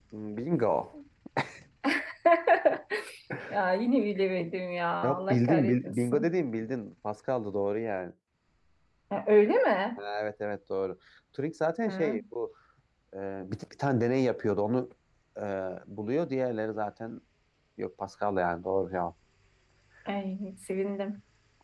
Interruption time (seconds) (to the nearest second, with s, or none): 5 s